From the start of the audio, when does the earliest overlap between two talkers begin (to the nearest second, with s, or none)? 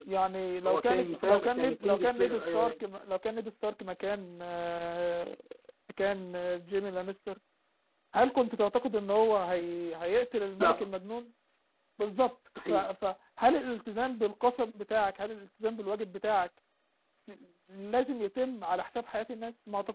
1 s